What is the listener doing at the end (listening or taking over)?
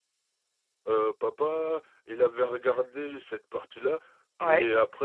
listening